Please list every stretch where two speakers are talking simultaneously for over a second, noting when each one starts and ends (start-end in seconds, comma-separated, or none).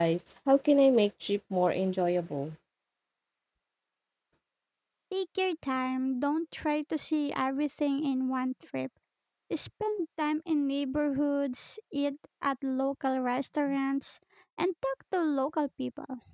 none